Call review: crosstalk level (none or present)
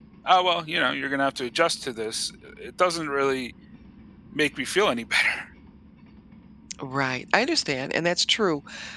none